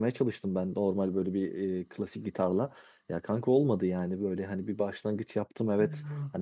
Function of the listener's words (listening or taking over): listening